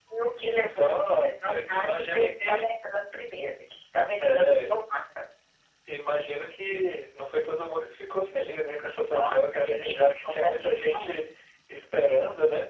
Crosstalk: present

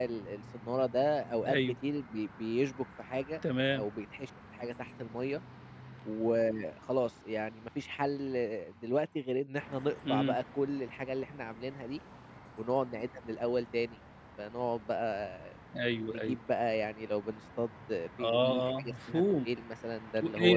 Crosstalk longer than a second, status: present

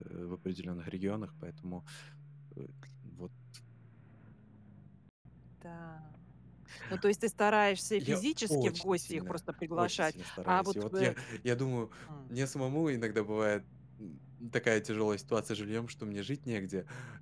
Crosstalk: present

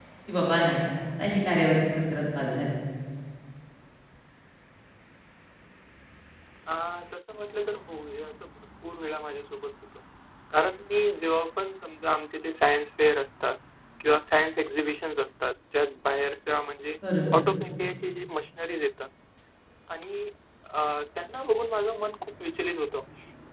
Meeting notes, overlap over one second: none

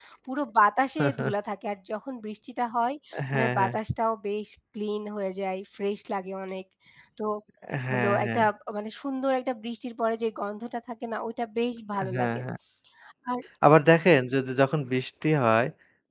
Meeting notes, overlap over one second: none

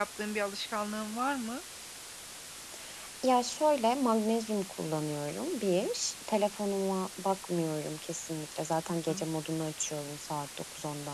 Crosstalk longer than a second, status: none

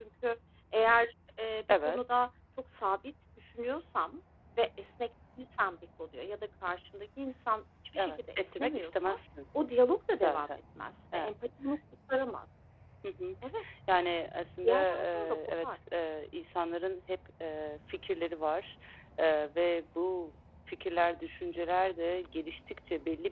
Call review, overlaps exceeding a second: present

